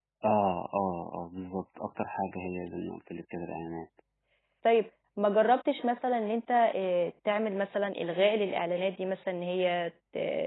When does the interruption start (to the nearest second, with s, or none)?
none